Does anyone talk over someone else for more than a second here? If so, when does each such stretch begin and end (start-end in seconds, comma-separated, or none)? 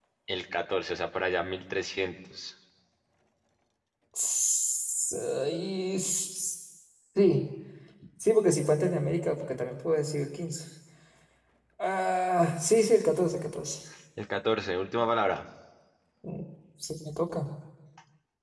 none